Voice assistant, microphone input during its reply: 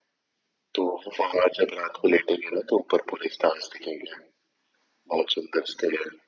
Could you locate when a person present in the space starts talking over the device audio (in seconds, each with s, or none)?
none